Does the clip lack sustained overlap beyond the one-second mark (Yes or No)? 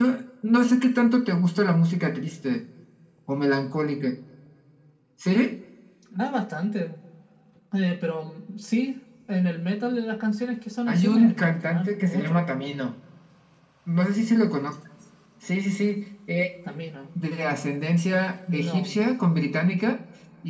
No